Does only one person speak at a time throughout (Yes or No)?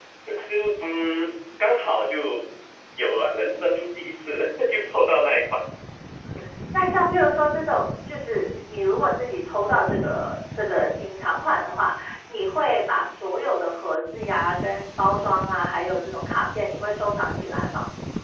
Yes